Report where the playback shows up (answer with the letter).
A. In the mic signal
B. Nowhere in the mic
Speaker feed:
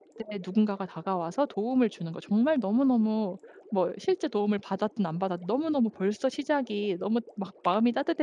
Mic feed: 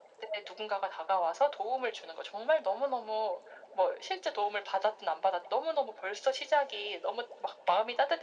A